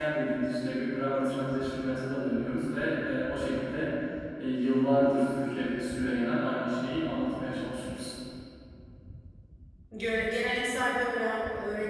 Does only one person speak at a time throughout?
Yes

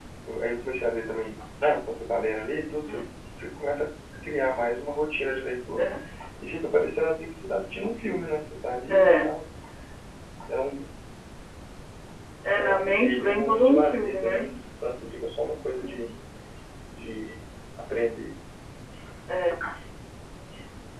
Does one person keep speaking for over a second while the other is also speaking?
Yes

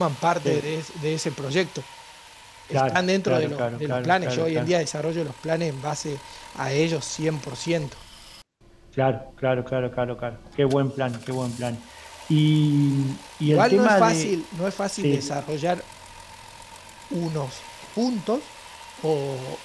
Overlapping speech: Yes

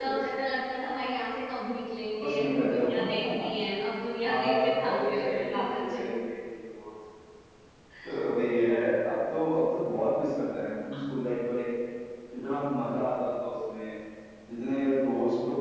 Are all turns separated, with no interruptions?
No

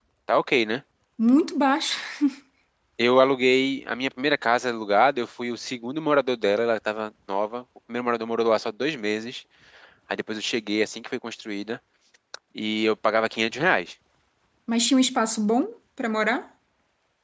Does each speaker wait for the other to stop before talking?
Yes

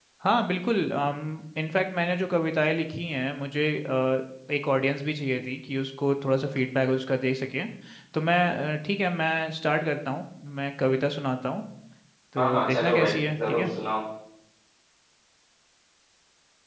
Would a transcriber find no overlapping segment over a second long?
No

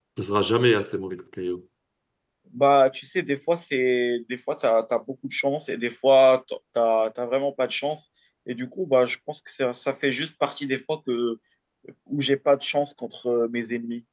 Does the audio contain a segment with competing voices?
No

